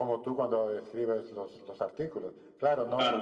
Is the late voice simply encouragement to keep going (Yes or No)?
Yes